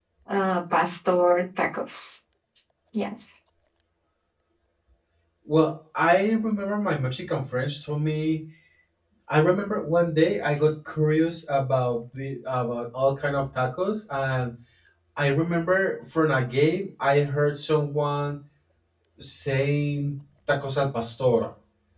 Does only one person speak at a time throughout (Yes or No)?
Yes